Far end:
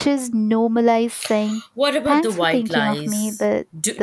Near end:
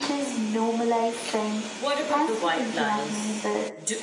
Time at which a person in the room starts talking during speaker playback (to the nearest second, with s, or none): none